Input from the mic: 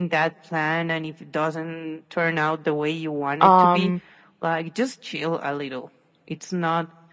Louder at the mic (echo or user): user